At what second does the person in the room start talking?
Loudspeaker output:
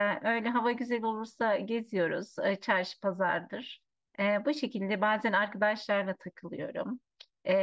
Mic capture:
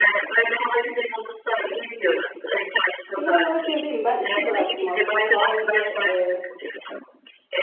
3.1 s

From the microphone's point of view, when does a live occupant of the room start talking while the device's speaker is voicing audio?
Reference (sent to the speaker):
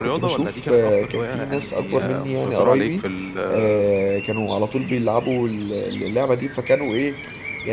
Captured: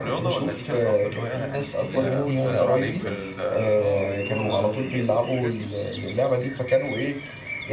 1.9 s

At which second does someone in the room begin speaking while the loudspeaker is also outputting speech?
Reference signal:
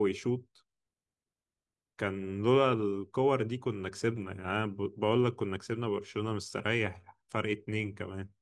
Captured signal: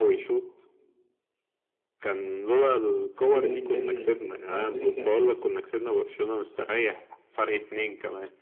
3.1 s

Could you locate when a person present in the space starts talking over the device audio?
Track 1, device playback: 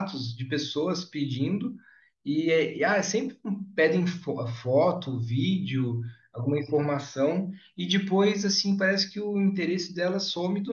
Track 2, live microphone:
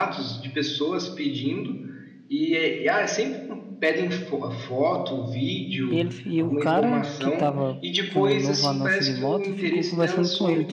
5.9 s

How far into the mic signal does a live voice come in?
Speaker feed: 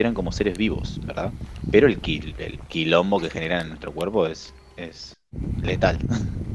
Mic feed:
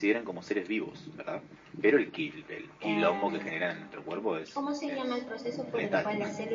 2.8 s

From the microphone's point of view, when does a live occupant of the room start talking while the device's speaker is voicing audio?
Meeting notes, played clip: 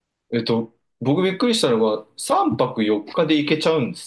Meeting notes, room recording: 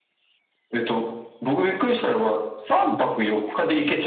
none

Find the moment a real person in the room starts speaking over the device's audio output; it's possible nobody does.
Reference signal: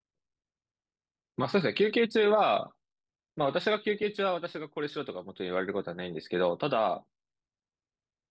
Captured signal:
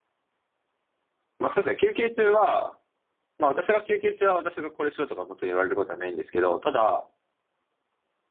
none

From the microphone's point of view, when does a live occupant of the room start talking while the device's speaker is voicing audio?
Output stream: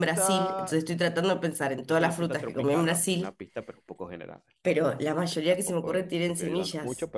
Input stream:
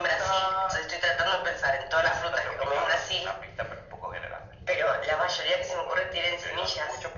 none

